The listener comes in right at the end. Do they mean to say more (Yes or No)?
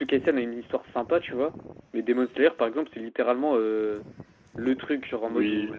No